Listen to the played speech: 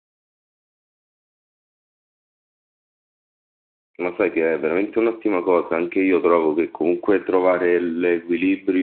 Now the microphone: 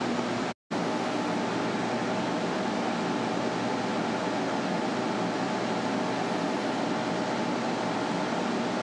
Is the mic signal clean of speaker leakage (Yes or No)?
Yes